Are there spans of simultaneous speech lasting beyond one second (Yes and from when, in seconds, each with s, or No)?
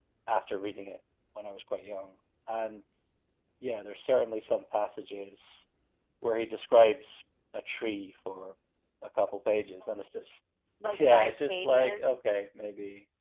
Yes, from 10.9 s